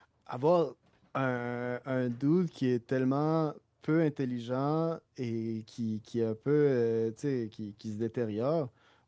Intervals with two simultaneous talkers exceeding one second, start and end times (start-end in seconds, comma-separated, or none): none